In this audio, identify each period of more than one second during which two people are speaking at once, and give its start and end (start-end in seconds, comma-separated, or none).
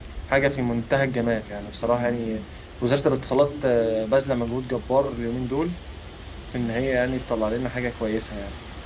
none